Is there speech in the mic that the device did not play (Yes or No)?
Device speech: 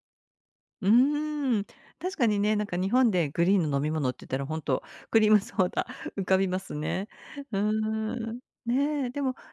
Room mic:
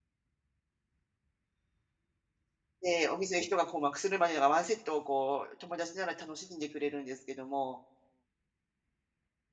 Yes